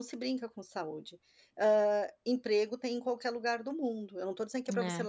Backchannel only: Yes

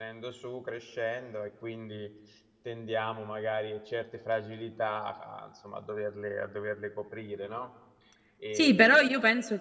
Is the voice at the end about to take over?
Yes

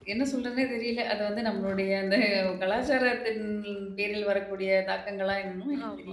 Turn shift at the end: Yes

